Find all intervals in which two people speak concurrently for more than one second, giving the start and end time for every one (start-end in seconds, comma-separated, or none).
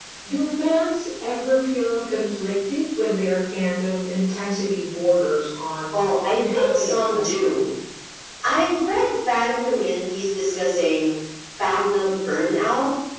5.9-7.5